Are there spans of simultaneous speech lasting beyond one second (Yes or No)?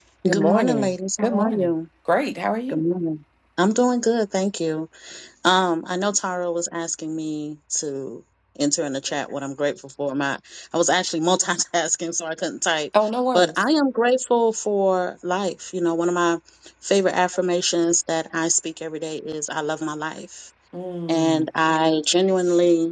Yes